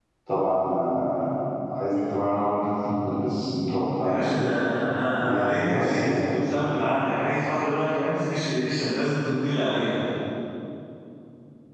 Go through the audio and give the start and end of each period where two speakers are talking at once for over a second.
5.1-6.4

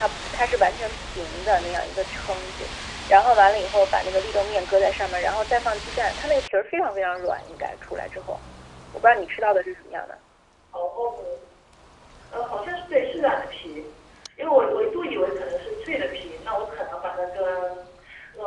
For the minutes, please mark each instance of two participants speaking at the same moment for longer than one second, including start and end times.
none

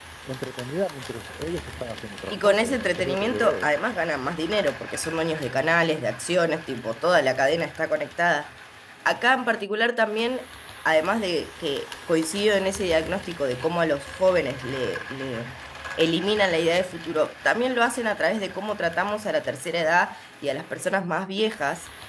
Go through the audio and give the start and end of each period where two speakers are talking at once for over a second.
2.3-3.7

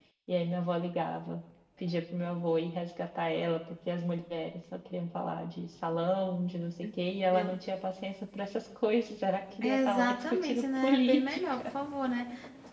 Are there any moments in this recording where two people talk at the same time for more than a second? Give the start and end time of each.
9.6-11.7

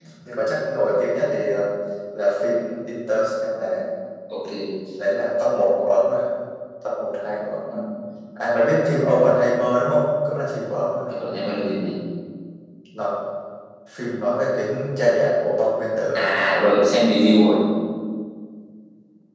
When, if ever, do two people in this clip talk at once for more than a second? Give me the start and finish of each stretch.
none

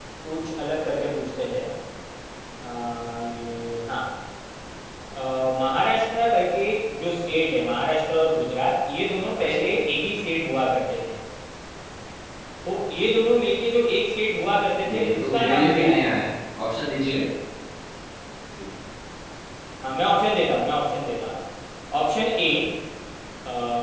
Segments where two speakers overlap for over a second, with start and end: 14.9-16.1

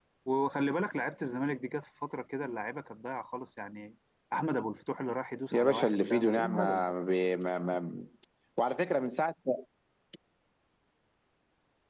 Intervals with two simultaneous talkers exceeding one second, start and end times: 5.5-6.9

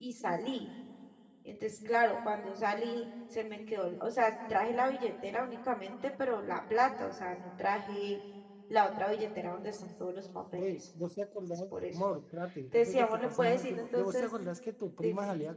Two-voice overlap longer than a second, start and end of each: 12.7-14.3

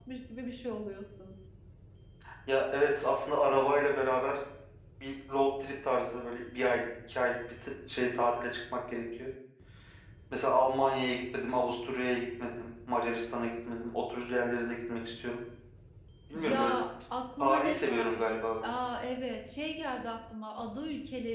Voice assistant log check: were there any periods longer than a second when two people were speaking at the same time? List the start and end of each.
17.4-18.7

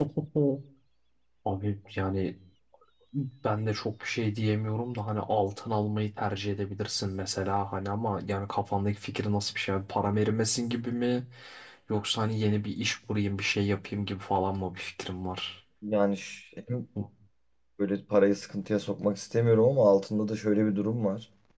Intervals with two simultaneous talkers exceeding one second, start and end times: none

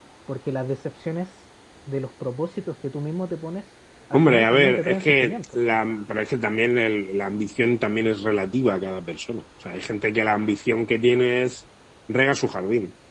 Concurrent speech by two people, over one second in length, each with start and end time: 4.1-5.4

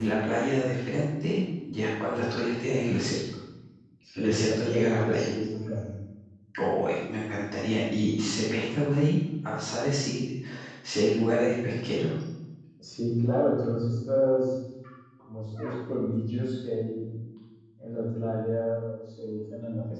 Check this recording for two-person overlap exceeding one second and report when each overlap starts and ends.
4.1-5.3

